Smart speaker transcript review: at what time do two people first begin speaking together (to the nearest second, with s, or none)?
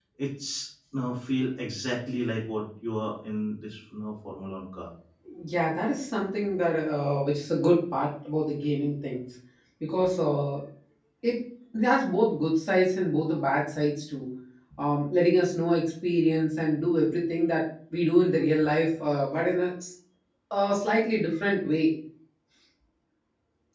none